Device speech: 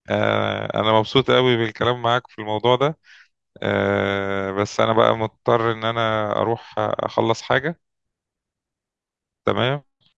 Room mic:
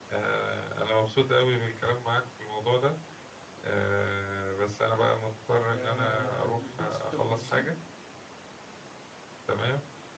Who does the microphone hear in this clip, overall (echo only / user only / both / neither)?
both